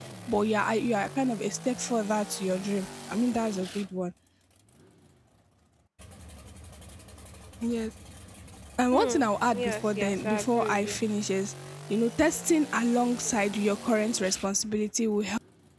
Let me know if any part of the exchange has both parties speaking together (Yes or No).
Yes